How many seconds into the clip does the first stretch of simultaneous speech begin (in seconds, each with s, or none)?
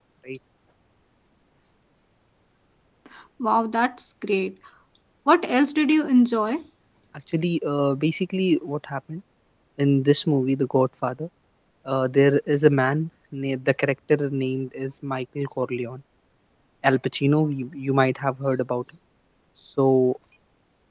none